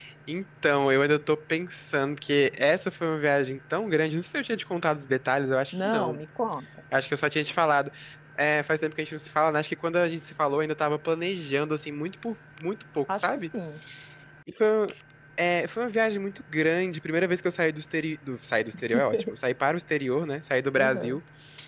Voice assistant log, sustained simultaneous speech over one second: none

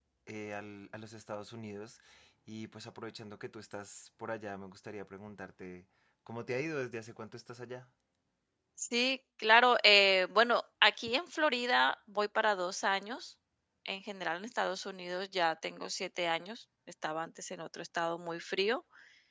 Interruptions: none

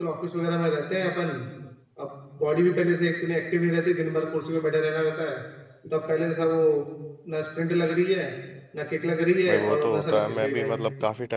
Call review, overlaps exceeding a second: present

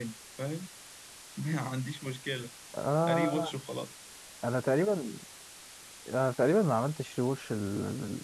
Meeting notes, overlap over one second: none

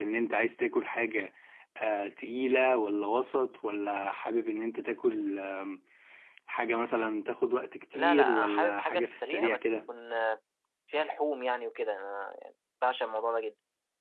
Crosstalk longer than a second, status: present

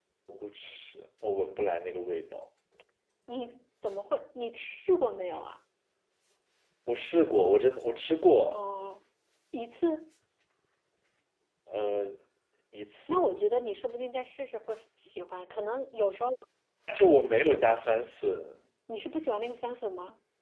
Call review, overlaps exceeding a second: none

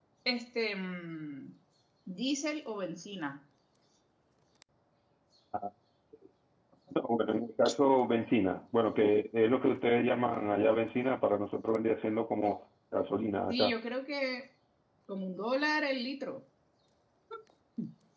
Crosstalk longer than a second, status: none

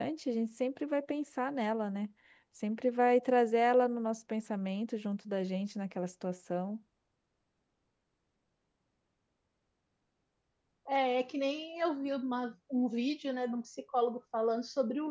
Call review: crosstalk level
none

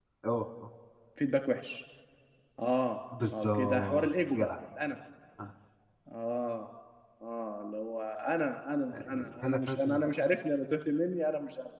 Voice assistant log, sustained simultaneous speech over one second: present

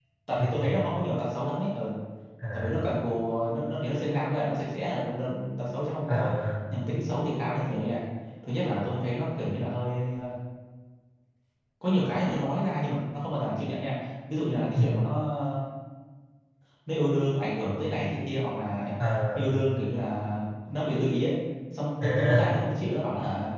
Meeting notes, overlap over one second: none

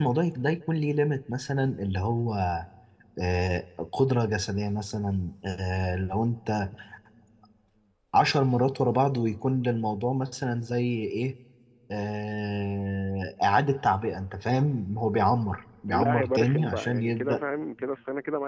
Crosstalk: present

